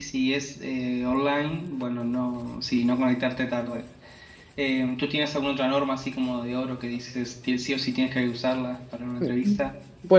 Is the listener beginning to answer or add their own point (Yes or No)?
Yes